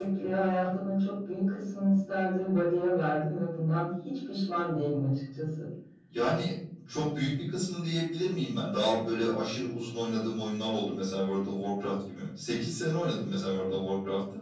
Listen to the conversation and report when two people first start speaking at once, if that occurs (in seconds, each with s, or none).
none